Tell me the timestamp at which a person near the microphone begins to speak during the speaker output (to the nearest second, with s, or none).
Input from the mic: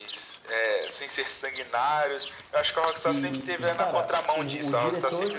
3 s